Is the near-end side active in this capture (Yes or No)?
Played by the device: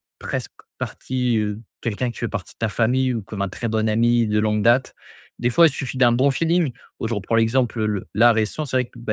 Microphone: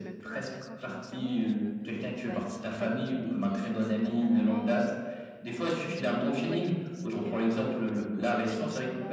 Yes